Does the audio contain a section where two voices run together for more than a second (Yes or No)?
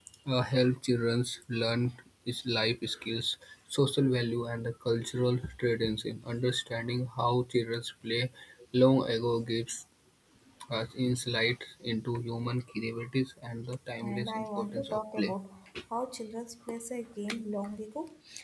Yes